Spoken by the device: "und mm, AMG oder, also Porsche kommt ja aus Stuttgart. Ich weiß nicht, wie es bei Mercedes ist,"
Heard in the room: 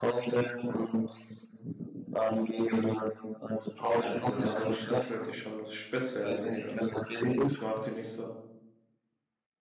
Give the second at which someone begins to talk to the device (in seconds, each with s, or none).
4.0 s